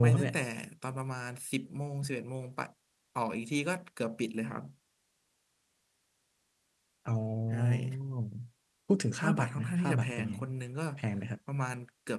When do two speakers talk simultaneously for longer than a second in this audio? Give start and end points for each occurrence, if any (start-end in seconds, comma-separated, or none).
9.1-10.3